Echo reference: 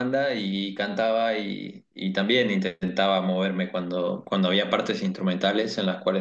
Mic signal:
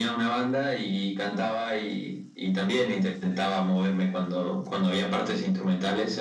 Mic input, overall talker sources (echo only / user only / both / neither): echo only